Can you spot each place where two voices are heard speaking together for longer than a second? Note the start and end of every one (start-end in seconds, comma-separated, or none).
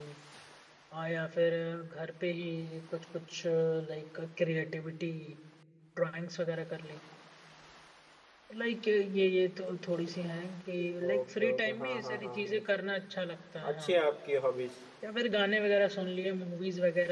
11.1-12.6